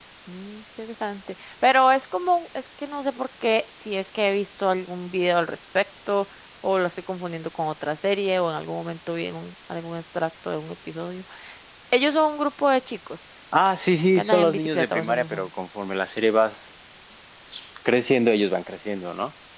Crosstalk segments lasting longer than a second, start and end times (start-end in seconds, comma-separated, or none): 14.2-15.5